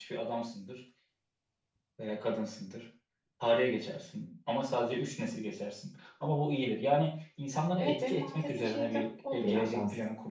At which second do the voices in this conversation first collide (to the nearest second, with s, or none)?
8 s